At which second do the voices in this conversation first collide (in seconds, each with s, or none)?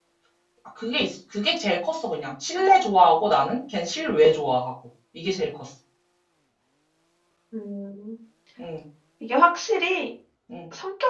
none